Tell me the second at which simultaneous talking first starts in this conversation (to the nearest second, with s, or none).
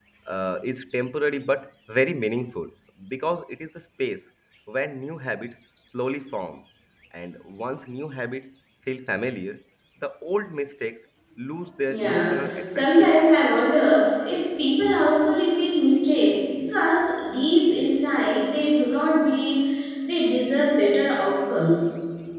12 s